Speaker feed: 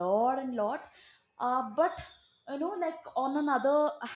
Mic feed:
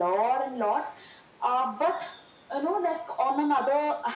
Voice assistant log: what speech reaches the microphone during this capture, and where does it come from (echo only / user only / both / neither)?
echo only